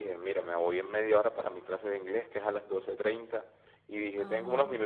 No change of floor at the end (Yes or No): Yes